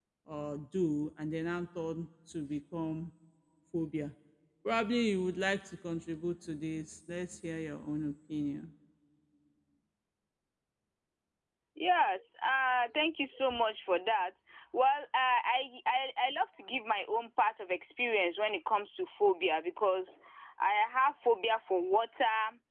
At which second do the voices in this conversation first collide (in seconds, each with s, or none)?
none